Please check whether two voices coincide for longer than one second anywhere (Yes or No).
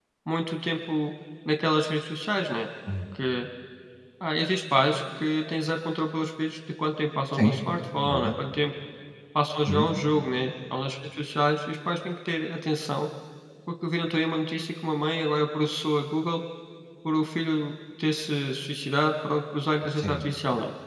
No